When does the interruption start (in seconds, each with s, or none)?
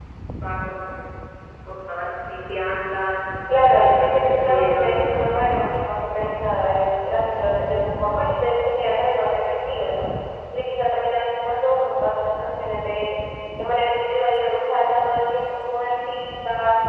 3.5 s